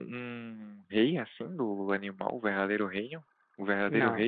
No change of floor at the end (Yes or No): No